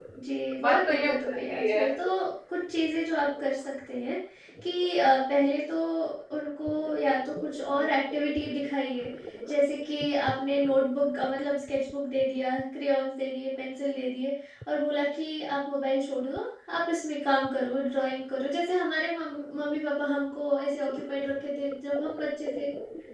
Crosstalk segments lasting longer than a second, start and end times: 0.6-1.9

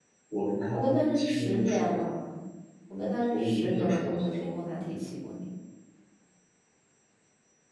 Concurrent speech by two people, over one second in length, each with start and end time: 0.7-2.0, 3.3-4.5

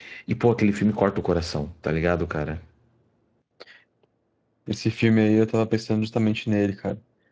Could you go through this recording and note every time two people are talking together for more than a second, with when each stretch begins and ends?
none

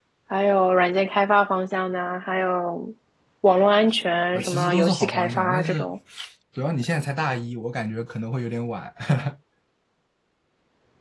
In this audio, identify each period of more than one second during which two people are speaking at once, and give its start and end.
4.3-5.9

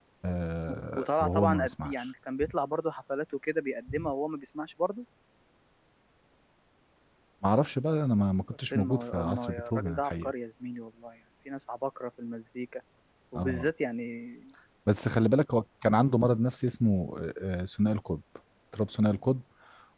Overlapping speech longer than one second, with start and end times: 0.7-1.9, 8.7-10.3

